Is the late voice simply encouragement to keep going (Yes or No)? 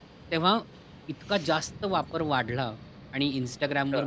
Yes